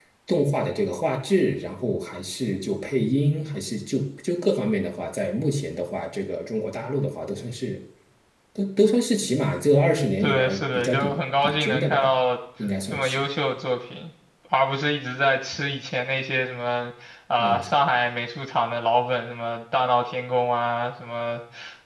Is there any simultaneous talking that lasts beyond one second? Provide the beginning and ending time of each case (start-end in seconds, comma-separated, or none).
10.2-12.1